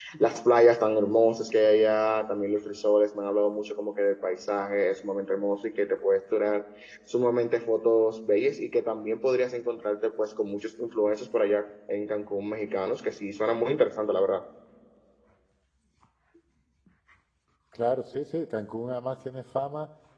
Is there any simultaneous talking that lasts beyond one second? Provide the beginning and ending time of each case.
none

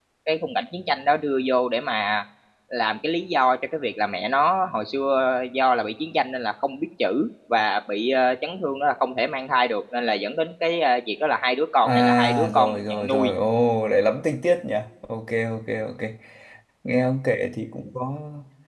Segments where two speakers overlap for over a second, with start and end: 11.8-13.3

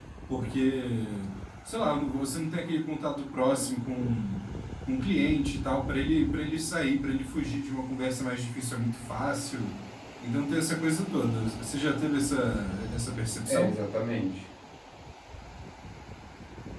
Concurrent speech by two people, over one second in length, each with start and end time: none

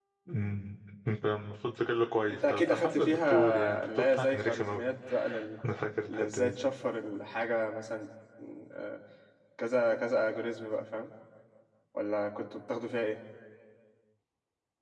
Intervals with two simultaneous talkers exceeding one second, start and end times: 2.3-4.9

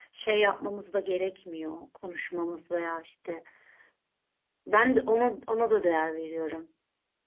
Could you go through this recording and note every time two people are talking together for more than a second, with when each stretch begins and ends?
none

